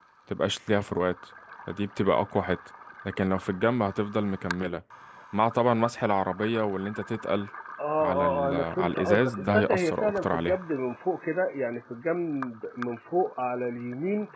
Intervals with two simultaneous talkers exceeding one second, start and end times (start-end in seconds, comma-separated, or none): 8.0-10.6